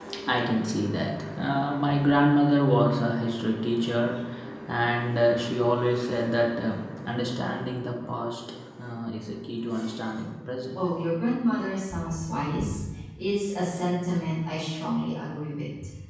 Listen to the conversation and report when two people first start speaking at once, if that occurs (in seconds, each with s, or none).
none